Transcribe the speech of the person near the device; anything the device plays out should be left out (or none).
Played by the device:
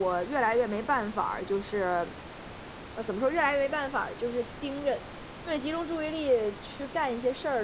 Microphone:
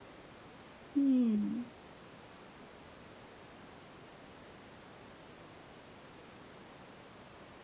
嗯。